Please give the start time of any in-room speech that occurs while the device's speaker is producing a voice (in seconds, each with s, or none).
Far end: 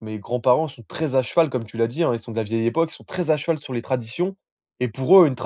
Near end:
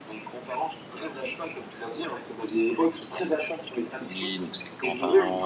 4.1 s